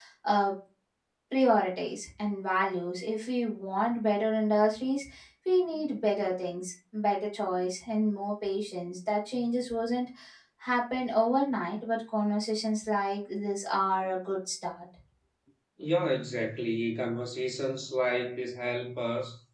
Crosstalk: none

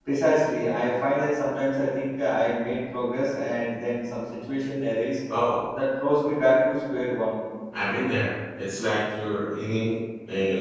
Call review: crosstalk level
none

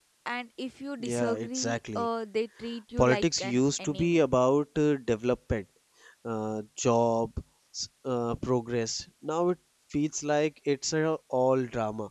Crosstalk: present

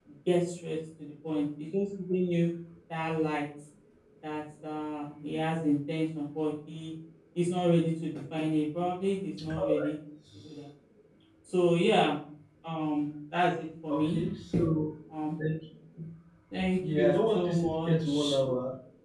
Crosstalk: present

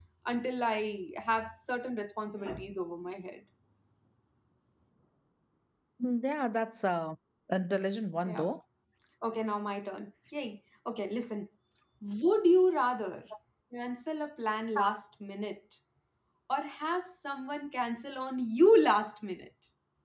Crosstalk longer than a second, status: none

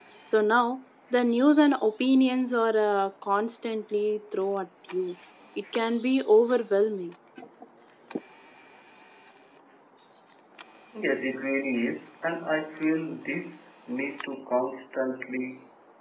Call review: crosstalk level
none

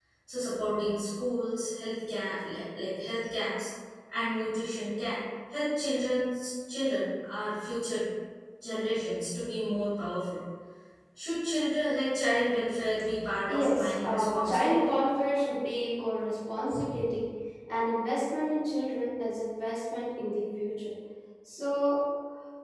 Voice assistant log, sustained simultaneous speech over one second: present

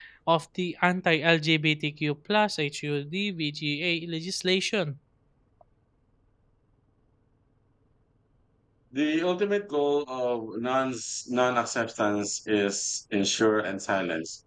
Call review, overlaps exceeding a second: none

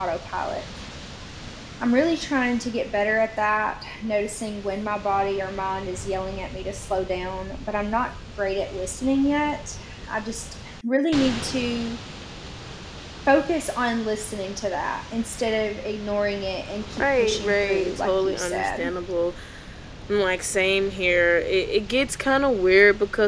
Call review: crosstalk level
present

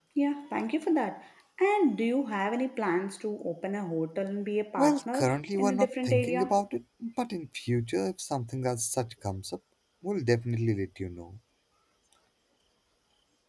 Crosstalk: present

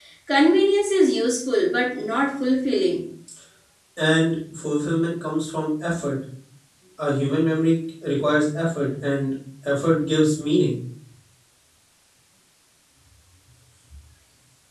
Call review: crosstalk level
none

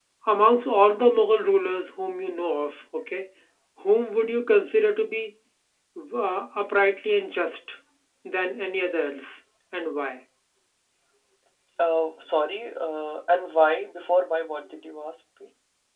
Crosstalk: none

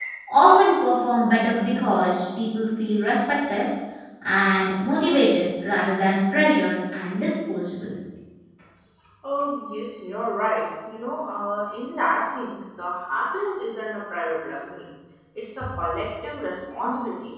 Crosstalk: none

